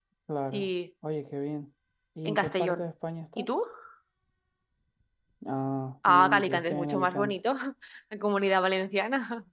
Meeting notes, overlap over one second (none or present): present